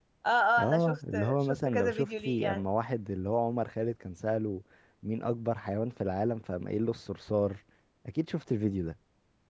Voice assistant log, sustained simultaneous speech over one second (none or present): present